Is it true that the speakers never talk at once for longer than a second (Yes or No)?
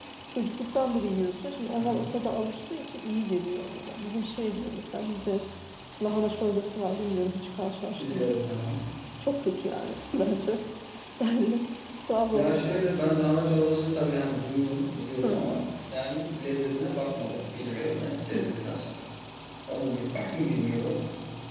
Yes